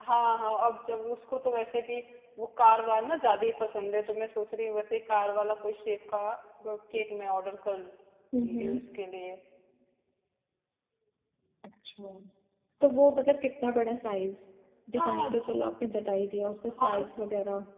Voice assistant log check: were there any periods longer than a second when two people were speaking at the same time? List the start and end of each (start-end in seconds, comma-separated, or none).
none